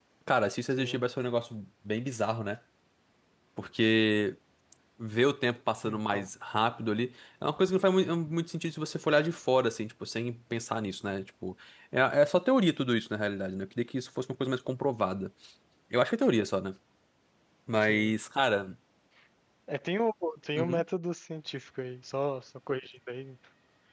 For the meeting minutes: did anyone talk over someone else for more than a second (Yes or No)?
No